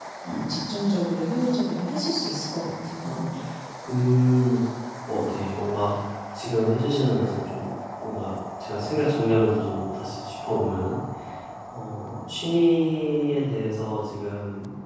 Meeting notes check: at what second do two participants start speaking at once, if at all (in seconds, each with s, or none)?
none